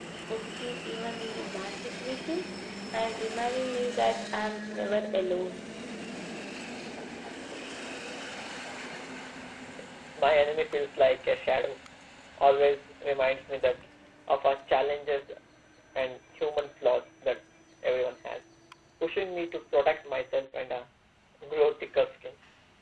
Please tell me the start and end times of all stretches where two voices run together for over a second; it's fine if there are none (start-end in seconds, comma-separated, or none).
none